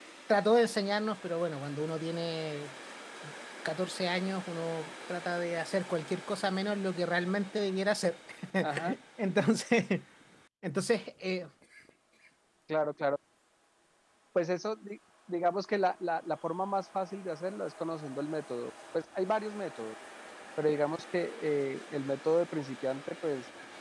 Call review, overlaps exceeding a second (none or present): none